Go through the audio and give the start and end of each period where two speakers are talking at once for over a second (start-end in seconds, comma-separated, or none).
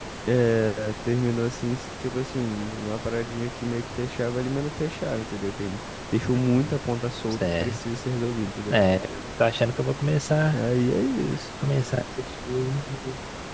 none